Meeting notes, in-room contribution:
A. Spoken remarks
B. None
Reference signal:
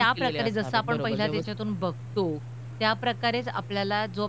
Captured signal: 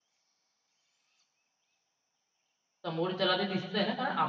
A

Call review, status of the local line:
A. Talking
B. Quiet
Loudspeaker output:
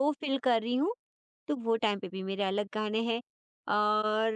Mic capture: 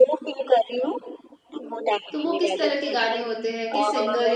A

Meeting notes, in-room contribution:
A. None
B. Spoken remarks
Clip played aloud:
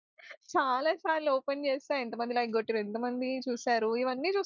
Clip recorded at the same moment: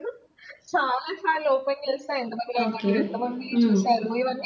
B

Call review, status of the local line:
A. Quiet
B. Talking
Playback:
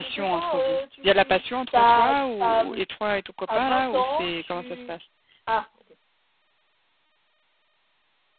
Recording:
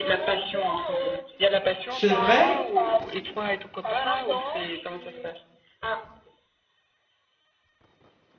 B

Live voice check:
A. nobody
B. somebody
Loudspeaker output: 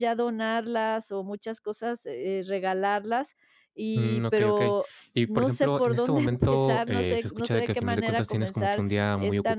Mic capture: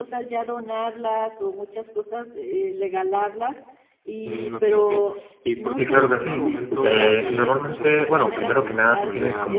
B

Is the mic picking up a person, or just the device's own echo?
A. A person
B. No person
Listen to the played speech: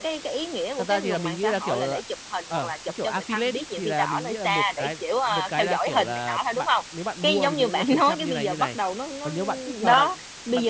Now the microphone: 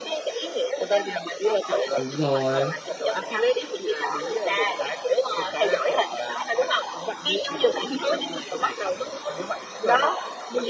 A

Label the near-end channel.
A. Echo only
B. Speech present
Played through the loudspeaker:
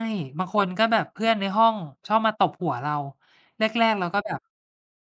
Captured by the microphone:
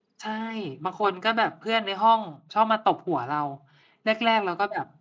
A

